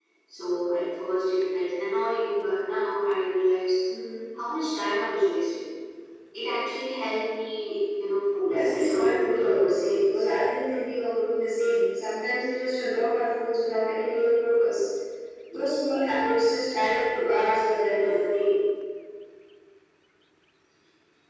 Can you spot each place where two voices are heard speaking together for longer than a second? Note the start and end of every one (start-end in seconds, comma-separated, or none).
8.4-10.2